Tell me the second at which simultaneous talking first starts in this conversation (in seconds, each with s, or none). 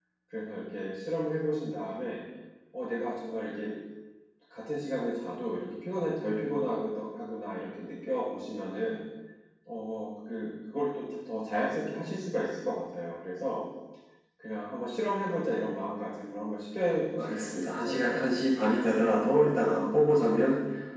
17.2 s